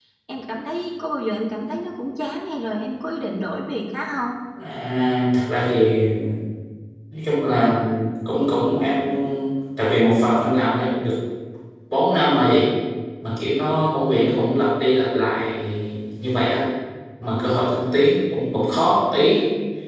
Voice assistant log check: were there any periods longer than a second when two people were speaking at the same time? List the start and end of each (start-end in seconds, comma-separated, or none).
none